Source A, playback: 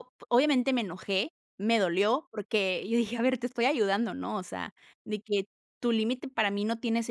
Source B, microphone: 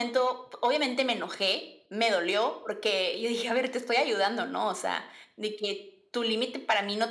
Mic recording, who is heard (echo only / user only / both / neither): echo only